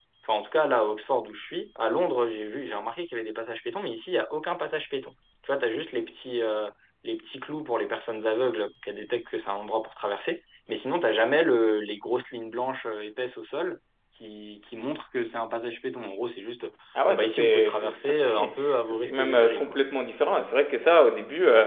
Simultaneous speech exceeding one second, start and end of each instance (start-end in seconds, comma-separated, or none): 17.1-19.6